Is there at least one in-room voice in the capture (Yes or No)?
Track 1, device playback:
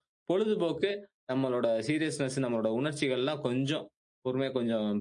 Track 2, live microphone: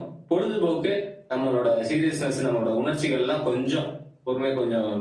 No